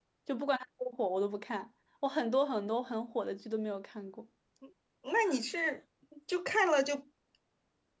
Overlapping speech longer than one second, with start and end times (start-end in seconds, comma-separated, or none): none